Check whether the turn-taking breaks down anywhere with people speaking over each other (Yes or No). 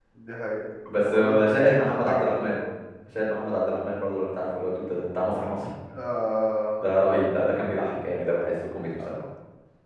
Yes